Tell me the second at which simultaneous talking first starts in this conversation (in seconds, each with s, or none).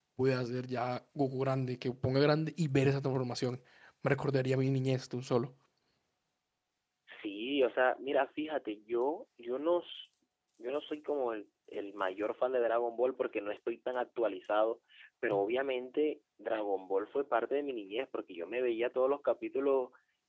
none